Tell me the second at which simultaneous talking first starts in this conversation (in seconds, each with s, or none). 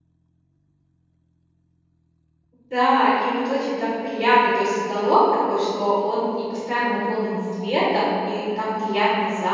none